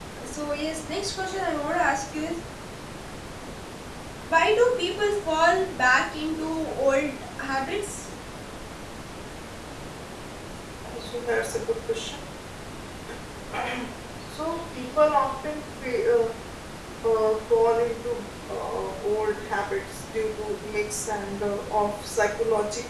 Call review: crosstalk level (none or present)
none